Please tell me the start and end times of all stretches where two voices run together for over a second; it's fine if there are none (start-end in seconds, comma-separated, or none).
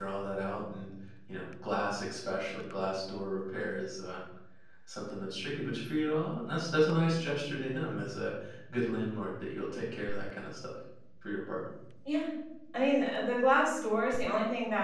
none